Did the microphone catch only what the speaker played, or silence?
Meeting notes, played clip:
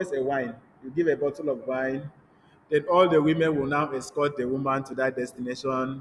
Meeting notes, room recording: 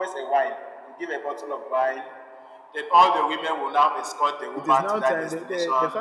No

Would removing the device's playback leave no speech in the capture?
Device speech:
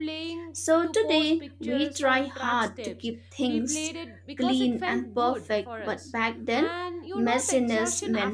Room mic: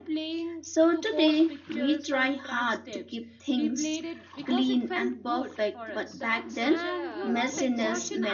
No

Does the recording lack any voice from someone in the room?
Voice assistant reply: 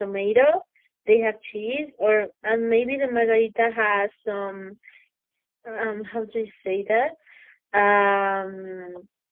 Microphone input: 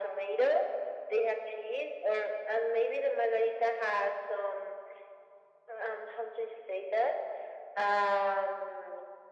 Yes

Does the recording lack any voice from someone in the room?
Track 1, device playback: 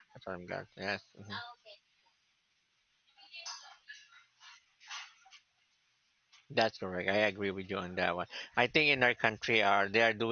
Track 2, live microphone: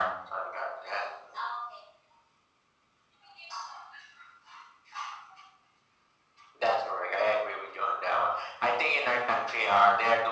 Yes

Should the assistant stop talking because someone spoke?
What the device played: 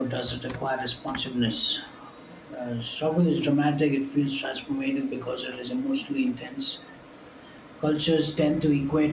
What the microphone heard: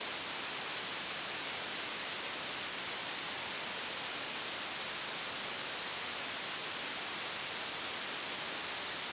No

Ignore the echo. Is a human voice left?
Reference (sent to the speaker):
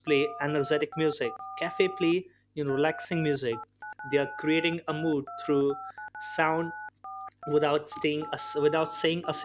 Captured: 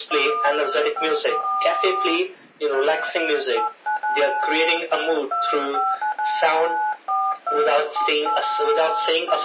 No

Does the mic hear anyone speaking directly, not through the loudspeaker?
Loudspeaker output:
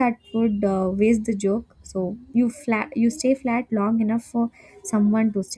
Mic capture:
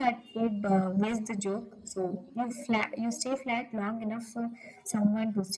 No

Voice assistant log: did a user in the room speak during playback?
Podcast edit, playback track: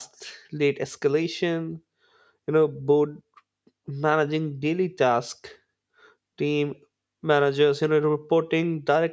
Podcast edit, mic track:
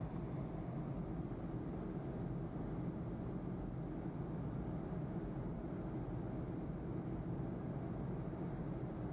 No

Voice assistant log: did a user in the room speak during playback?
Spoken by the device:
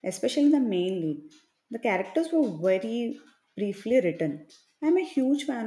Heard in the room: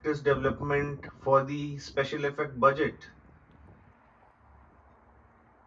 Yes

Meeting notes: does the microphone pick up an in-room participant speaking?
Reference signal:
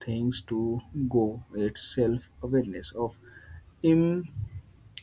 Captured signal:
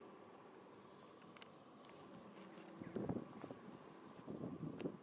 No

